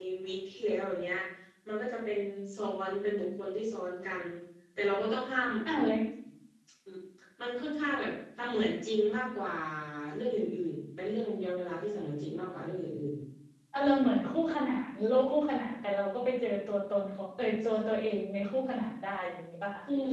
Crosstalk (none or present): none